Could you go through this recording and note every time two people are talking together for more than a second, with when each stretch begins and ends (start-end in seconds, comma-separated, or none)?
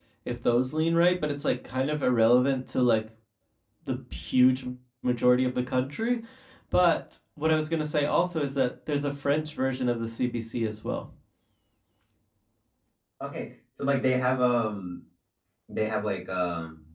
none